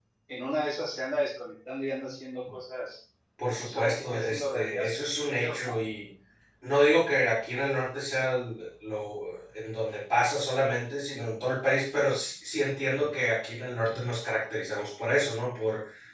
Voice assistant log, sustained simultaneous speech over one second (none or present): present